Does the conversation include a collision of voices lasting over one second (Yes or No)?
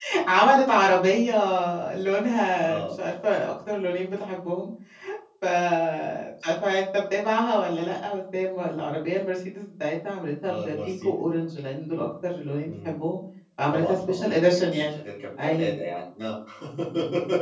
Yes